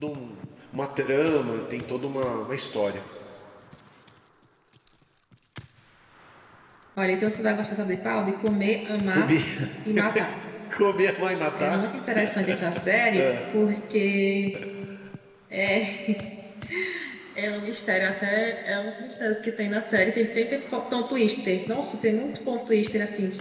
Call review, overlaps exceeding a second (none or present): none